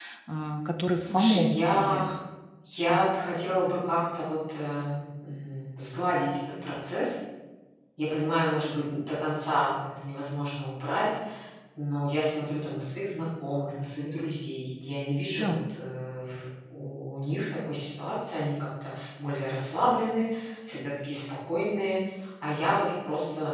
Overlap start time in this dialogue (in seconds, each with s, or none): 0.9 s